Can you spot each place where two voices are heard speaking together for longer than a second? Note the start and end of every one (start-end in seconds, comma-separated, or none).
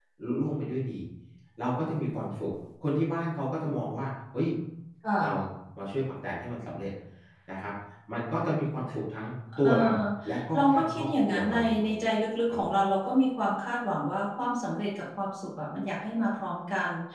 10.6-11.9